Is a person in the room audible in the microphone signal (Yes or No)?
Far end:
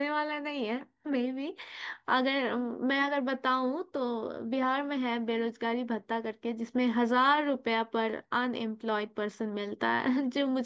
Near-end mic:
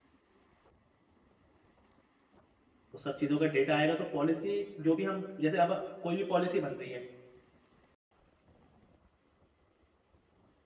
Yes